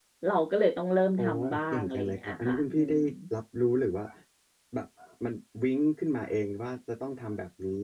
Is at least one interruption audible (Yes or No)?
Yes